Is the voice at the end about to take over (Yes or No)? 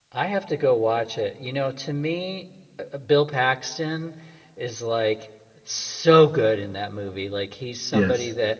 No